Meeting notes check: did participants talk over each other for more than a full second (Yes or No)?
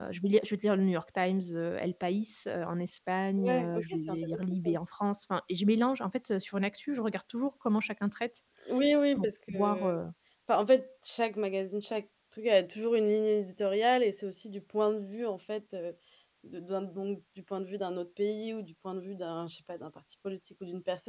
Yes